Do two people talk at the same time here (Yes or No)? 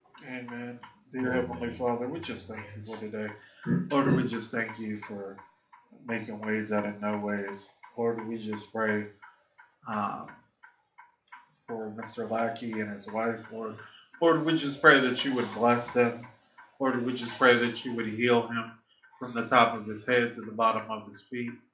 Yes